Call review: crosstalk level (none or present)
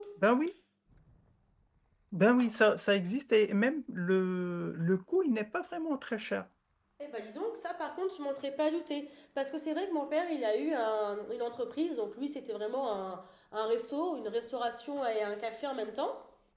none